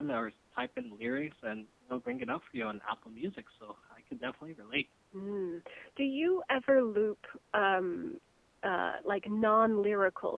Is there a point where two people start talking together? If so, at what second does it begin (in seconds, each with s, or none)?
none